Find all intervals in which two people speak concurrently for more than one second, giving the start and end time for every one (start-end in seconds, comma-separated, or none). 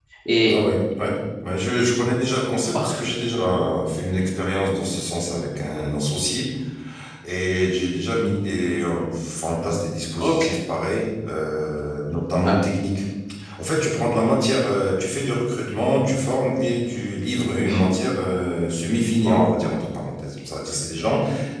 none